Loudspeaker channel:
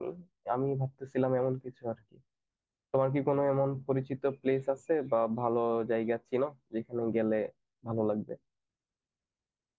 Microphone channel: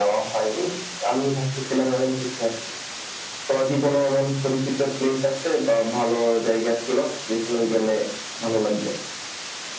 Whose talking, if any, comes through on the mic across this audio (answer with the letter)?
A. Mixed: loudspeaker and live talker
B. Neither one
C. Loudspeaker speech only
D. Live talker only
C